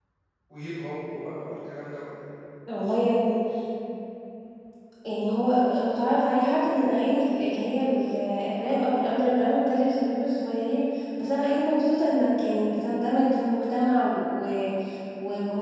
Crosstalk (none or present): none